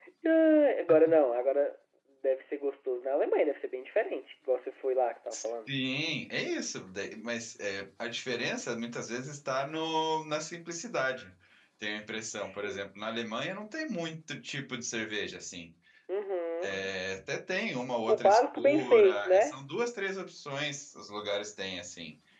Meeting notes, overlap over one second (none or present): present